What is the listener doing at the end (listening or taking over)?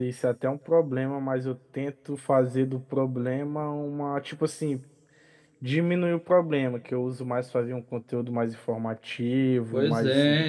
taking over